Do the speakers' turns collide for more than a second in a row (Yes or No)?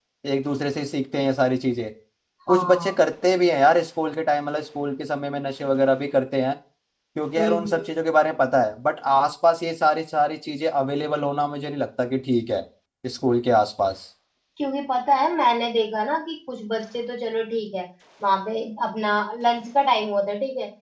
No